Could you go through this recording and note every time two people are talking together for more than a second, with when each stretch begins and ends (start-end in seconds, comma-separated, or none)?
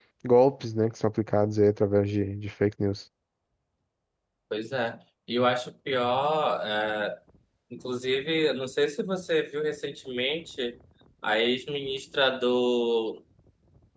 none